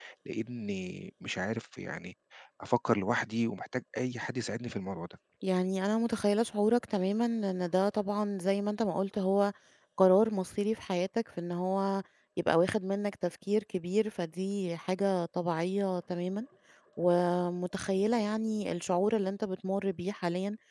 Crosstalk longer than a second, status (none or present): none